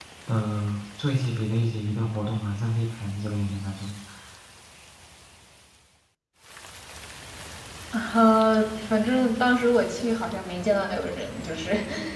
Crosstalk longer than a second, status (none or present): none